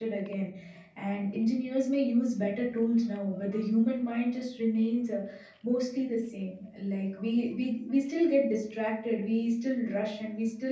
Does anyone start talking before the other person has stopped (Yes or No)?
No